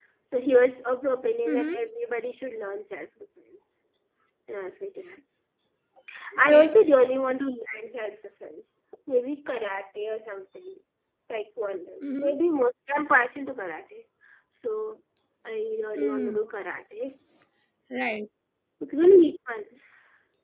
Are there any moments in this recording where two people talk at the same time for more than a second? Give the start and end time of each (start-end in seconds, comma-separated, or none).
none